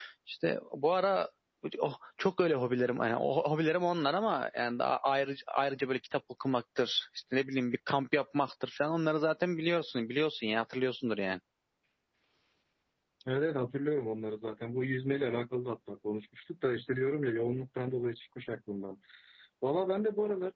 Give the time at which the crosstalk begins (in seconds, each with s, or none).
none